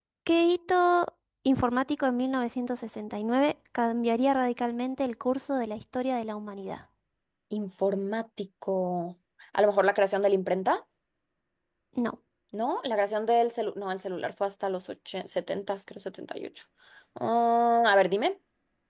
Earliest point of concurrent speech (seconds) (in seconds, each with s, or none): none